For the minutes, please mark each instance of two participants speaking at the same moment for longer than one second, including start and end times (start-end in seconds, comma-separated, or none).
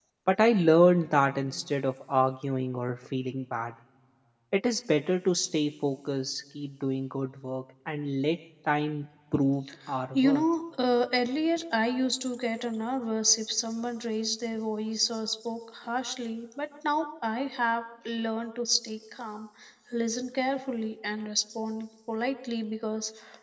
none